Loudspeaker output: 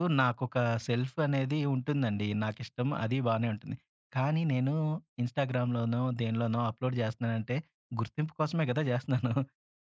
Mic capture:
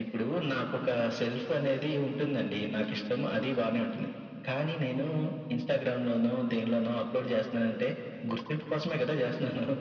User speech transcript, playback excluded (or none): none